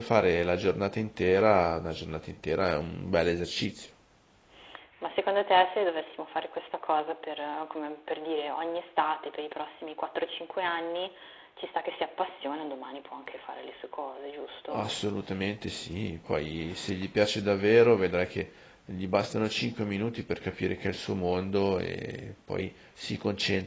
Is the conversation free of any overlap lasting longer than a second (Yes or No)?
Yes